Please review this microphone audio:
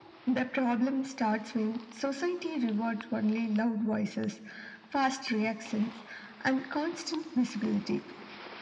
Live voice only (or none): none